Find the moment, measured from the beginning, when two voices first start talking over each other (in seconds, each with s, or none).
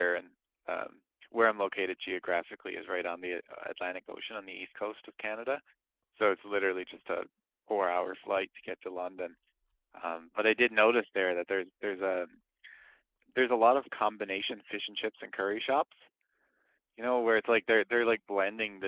none